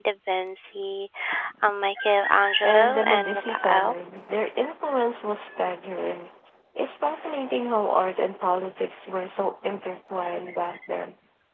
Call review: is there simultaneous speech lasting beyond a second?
Yes, from 2.6 s

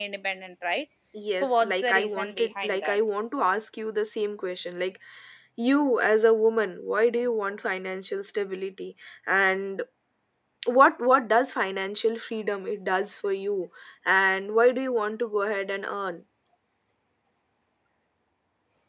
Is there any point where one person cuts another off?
Yes, from 1.4 s

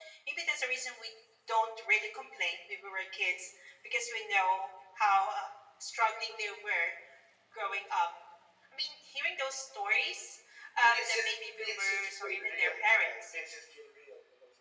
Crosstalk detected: Yes, from 10.9 s

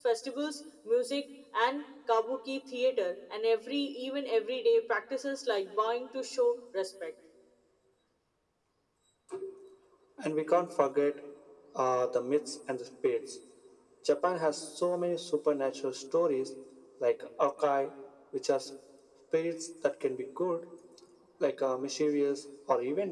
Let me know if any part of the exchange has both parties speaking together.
No

